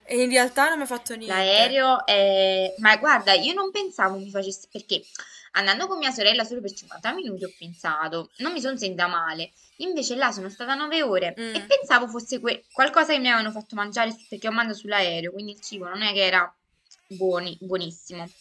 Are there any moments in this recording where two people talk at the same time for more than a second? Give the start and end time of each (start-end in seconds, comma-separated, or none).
none